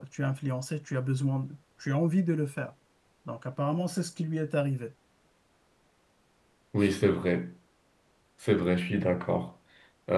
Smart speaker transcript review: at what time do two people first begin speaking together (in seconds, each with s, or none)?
none